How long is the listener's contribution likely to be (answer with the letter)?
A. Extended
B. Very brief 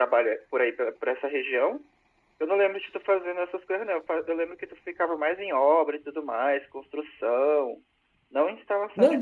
A